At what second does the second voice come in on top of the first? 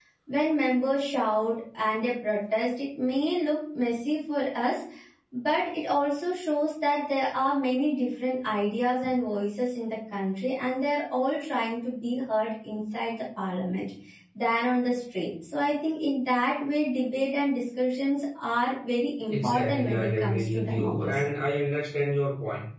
19.3 s

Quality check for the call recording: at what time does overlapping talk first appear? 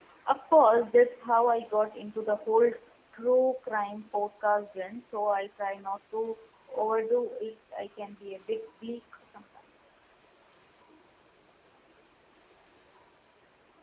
none

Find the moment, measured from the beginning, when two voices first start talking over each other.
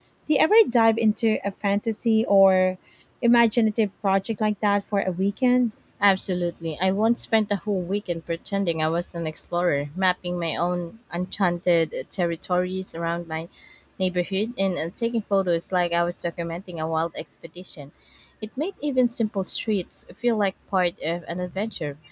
none

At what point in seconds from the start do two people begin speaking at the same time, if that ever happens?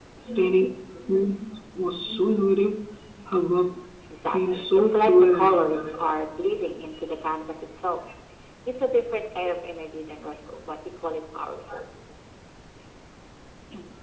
4.3 s

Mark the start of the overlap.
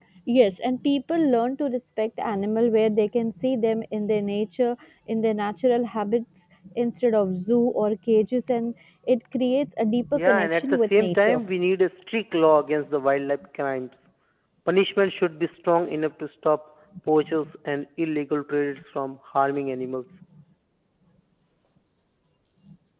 10.1 s

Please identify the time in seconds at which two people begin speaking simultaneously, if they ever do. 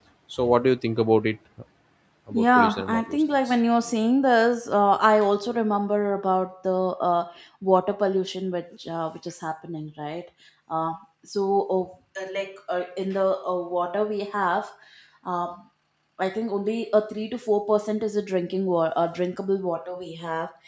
2.3 s

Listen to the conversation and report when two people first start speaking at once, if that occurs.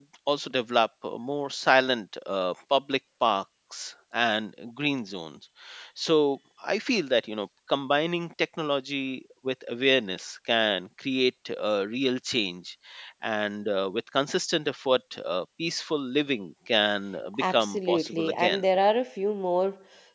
17.3 s

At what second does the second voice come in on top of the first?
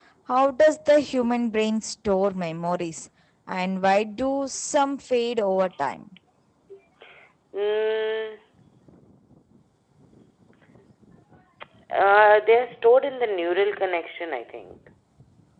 none

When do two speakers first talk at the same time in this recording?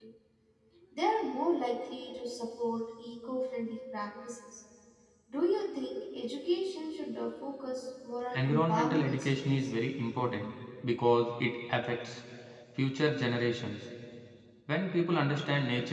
8.3 s

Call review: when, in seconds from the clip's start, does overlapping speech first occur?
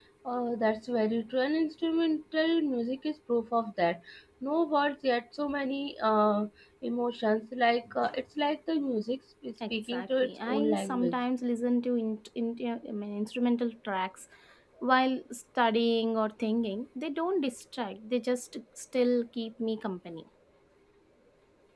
9.6 s

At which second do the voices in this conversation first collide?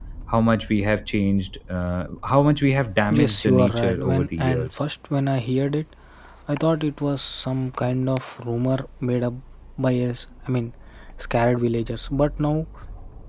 3.1 s

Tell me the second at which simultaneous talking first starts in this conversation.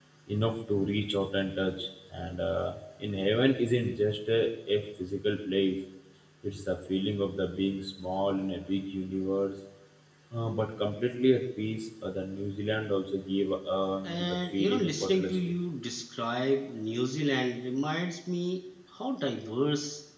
14.0 s

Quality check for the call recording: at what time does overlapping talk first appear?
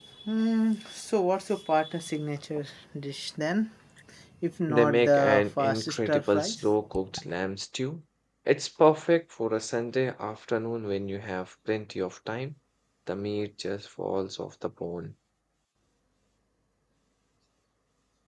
4.7 s

